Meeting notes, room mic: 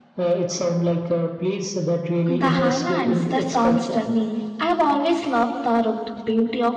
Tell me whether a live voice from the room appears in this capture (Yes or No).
Yes